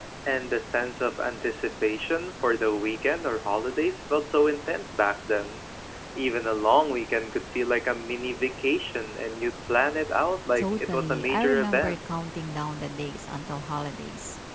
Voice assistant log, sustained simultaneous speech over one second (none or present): present